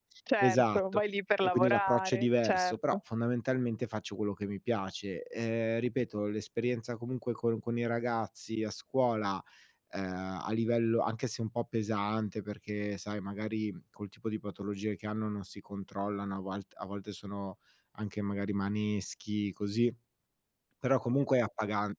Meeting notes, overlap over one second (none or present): present